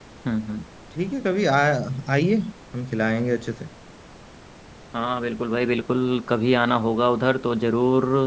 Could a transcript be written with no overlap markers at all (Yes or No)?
Yes